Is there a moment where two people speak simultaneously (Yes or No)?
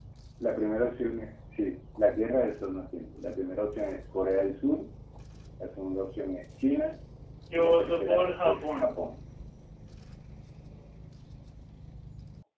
Yes